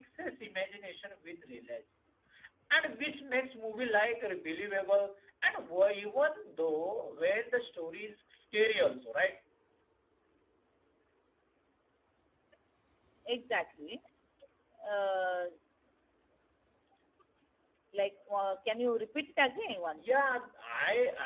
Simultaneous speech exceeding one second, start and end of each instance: none

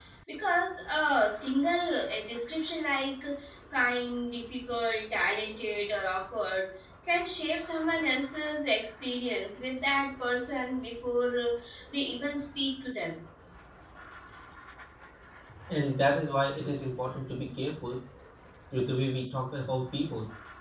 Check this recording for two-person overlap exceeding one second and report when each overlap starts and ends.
none

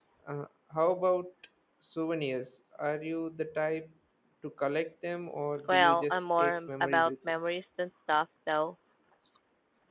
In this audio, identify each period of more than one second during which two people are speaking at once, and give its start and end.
5.7-7.1

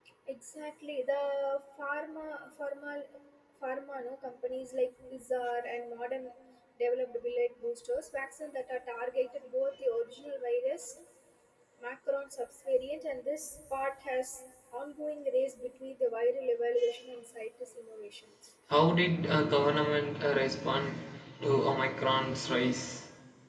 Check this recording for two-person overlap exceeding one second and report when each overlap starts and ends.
none

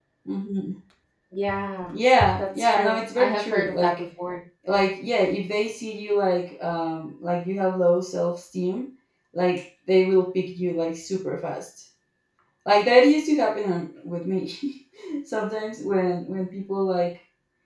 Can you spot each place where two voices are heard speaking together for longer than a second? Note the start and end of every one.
2.4-4.0

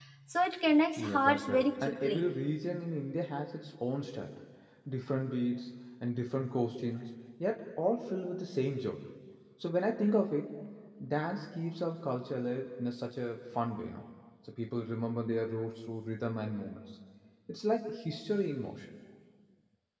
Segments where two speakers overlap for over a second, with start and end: 1.0-2.2

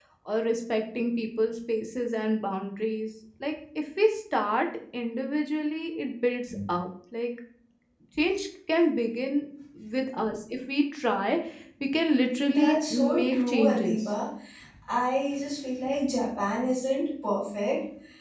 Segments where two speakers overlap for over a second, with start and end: 12.4-14.0

